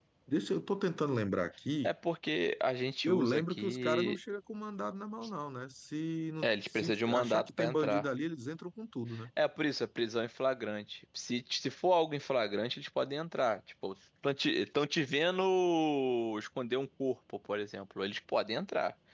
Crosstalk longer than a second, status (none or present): present